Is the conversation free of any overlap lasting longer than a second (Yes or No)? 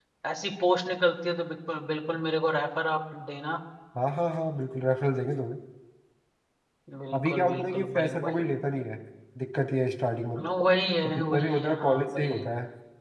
No